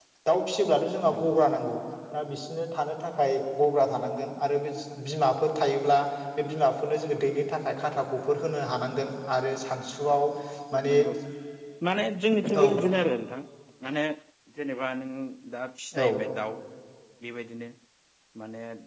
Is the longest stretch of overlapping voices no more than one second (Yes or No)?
Yes